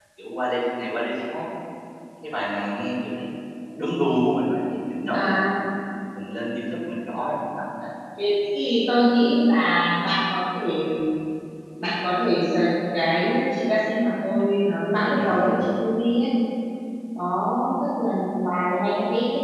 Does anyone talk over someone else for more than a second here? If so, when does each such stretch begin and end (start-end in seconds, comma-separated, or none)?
none